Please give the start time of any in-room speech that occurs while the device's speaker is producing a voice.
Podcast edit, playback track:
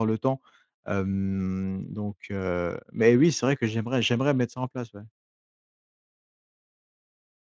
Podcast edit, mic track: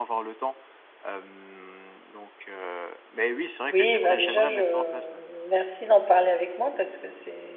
3.7 s

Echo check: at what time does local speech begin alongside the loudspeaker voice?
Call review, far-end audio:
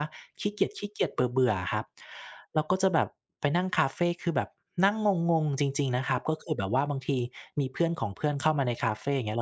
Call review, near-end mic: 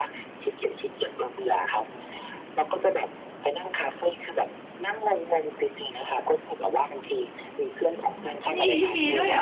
7.9 s

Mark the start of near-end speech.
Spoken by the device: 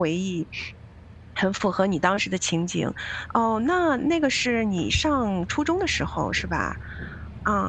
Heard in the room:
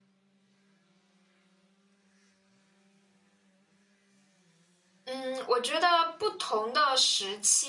5.1 s

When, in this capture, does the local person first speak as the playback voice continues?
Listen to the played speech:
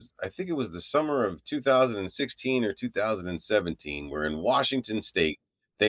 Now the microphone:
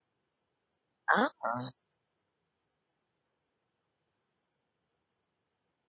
1.2 s

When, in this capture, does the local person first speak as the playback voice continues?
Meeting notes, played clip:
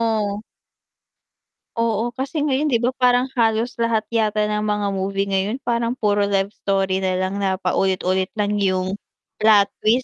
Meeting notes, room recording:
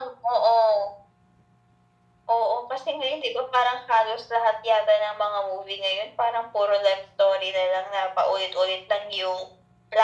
none

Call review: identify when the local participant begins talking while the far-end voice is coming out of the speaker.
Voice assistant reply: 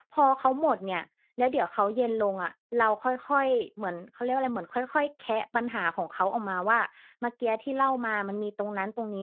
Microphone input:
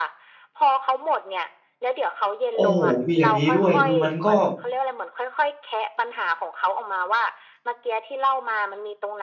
2.5 s

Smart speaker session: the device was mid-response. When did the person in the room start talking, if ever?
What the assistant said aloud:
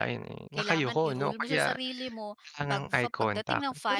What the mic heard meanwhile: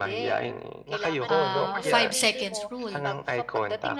1.2 s

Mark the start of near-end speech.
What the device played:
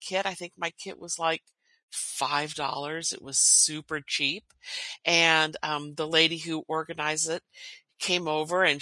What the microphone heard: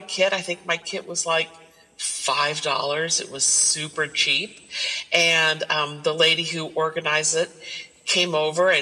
none

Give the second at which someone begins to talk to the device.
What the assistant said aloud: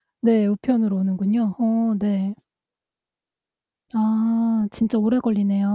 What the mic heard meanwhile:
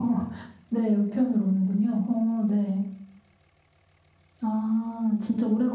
none

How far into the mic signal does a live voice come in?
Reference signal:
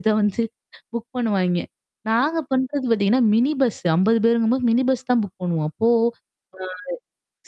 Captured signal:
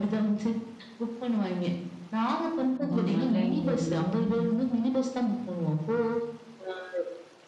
2.9 s

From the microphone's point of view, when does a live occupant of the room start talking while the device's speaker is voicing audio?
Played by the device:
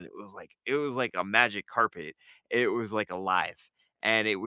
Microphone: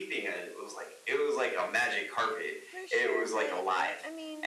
2.7 s

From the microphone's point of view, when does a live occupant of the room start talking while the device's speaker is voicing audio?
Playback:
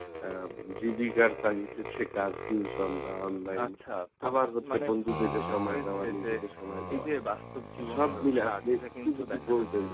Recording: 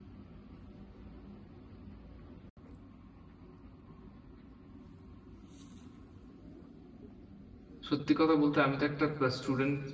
7.9 s

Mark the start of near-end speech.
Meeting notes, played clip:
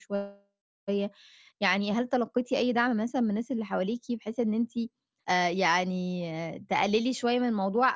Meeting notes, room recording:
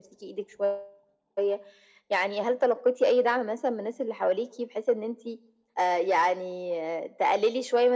none

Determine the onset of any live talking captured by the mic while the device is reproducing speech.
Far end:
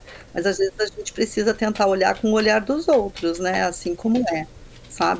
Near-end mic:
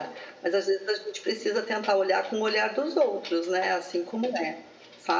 none

